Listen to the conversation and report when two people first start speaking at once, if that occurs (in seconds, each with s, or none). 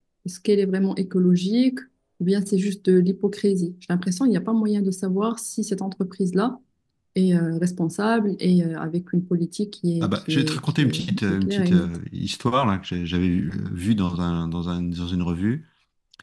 10.0 s